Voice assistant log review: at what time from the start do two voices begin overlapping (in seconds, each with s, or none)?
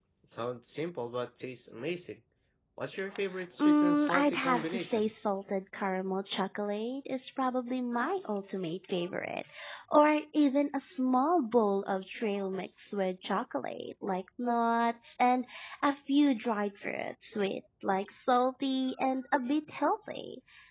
3.6 s